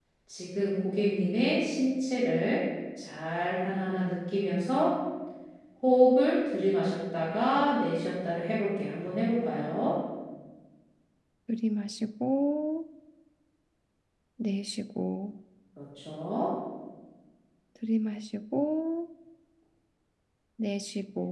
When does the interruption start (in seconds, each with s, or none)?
none